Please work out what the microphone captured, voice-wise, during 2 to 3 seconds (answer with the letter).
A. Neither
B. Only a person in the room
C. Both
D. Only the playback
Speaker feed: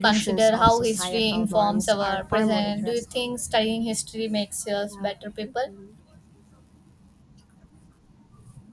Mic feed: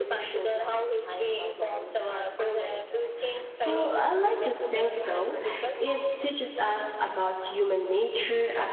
D